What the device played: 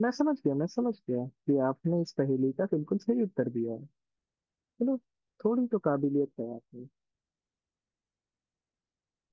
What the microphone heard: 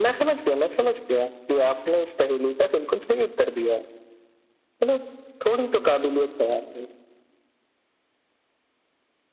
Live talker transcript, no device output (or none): none